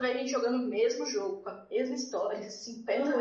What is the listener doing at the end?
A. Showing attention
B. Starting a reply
B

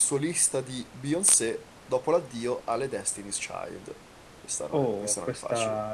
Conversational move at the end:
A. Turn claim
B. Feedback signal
A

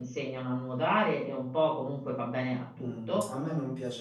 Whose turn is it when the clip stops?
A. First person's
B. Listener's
B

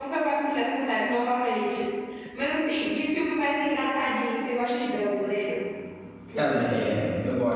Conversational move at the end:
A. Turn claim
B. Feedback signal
A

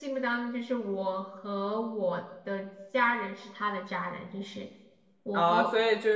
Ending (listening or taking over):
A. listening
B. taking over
B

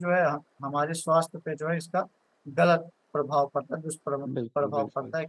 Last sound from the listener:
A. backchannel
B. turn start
B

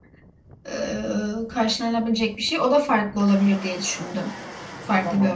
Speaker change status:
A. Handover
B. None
A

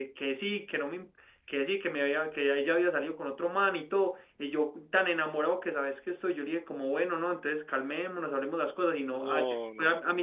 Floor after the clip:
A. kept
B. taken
A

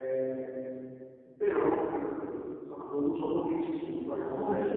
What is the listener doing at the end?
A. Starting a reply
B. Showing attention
A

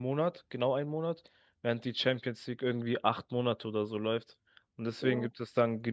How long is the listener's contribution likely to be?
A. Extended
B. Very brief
B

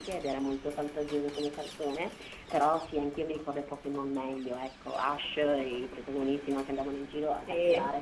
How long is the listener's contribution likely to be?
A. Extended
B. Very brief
B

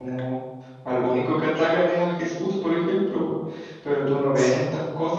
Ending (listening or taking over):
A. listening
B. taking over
A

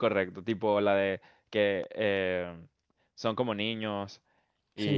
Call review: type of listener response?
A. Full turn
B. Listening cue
B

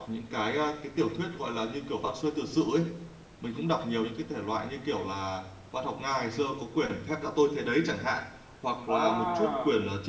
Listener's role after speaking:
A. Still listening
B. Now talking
A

